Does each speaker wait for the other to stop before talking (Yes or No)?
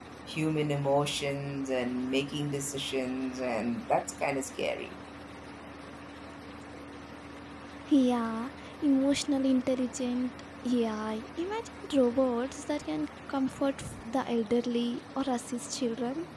Yes